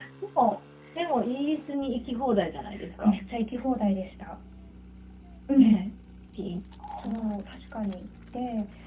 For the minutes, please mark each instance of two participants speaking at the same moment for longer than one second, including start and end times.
none

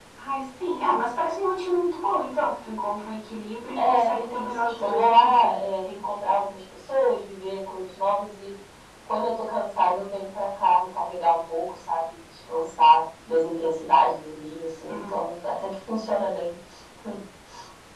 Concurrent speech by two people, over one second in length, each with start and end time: 3.8-5.5

